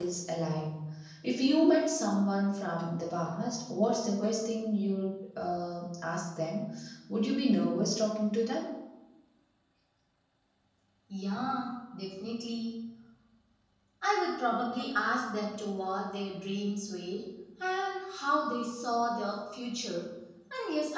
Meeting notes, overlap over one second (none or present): none